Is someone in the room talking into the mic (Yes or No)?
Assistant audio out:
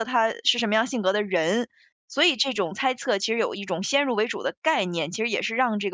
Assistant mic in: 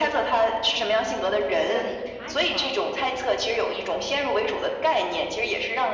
Yes